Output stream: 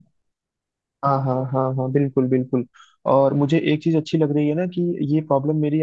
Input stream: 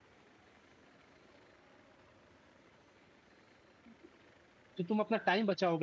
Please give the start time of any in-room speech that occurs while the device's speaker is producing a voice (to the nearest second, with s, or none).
5 s